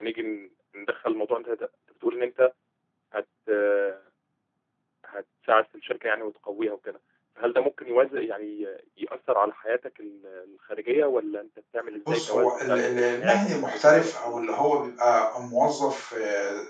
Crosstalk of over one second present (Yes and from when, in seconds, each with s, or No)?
Yes, from 12.1 s